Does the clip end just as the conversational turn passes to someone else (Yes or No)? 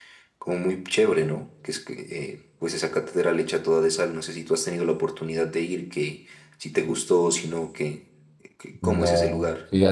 Yes